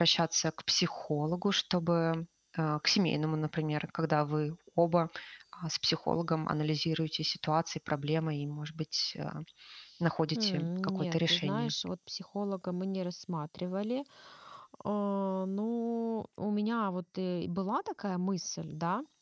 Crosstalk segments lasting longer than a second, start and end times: 10.3-11.7

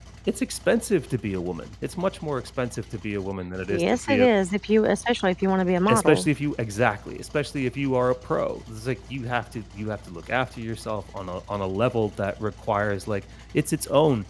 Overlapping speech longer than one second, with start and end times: none

